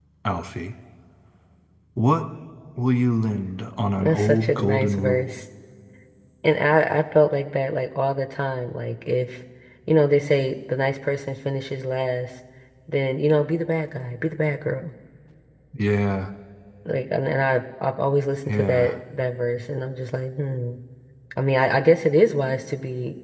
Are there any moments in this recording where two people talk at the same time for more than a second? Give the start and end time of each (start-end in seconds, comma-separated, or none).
4.0-5.3